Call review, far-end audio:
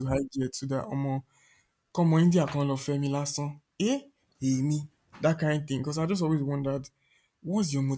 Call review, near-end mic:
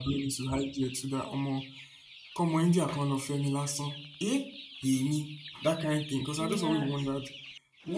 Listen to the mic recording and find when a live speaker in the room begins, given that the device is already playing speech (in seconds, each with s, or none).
6.4 s